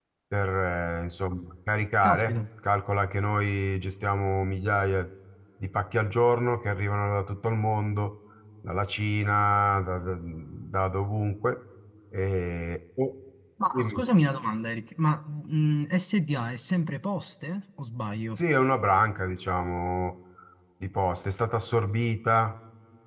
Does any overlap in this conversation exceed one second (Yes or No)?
No